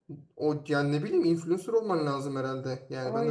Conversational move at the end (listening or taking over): taking over